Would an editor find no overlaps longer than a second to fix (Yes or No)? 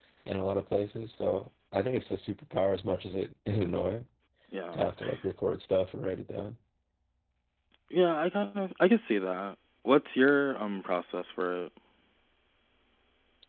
Yes